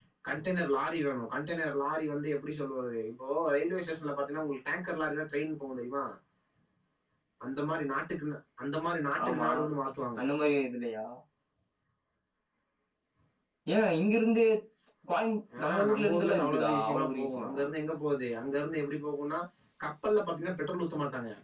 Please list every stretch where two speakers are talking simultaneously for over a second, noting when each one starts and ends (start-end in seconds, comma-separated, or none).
15.6-17.5